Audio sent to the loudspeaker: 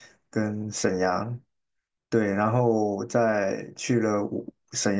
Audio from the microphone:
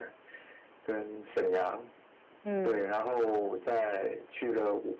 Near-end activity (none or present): present